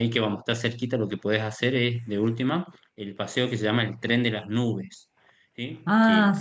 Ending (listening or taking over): listening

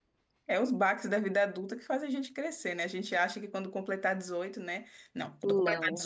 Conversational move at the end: listening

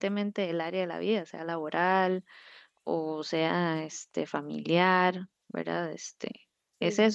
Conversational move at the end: listening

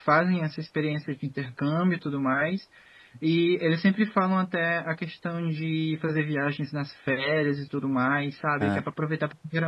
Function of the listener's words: listening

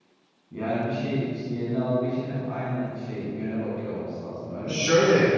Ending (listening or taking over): taking over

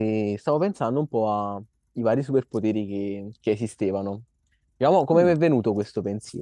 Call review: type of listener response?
listening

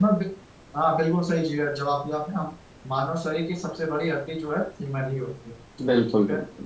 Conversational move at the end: taking over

